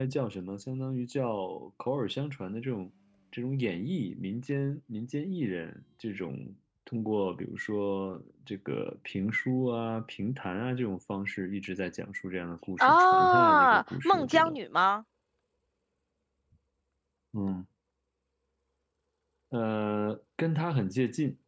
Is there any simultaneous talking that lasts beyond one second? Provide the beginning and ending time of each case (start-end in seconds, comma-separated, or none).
12.8-14.6